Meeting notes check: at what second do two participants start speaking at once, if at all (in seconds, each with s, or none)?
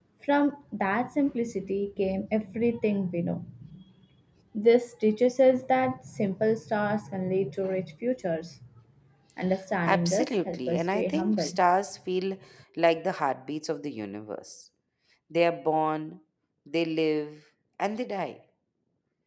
9.8 s